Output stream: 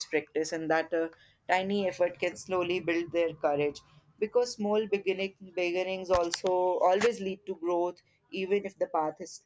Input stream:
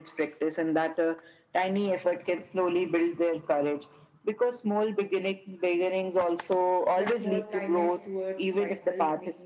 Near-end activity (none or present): present